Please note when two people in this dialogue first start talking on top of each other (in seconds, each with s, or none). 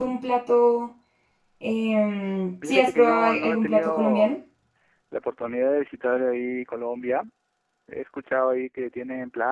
2.6 s